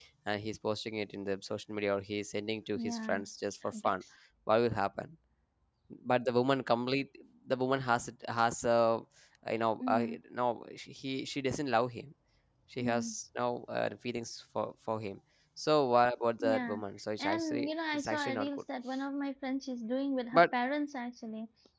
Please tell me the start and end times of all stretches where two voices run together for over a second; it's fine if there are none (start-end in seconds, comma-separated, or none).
17.2-18.5